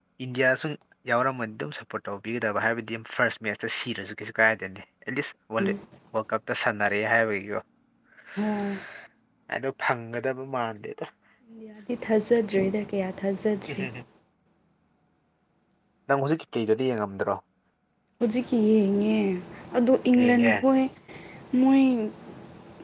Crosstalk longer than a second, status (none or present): none